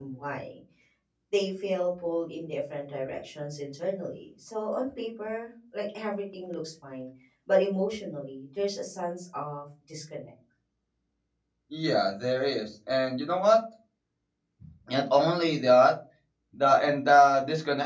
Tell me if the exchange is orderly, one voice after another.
Yes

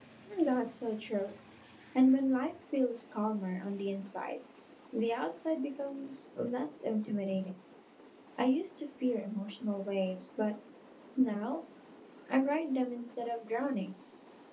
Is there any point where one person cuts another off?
No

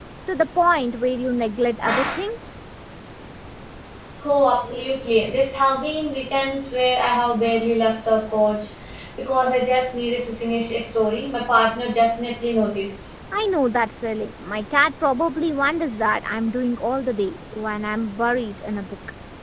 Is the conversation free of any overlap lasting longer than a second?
Yes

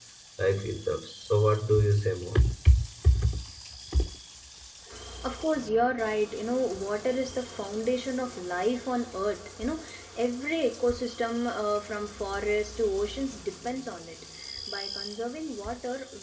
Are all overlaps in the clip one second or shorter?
Yes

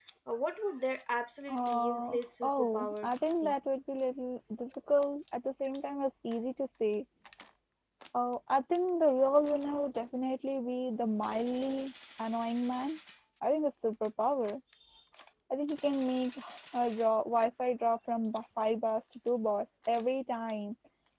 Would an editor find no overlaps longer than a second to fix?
No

